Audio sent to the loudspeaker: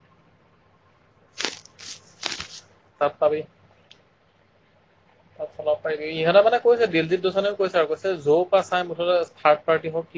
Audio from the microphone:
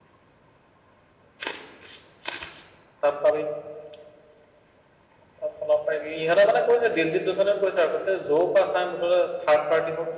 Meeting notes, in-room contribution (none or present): none